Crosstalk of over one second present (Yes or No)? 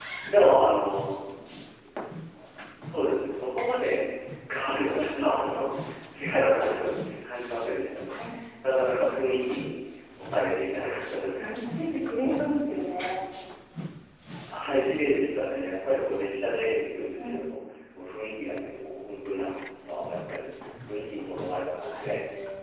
No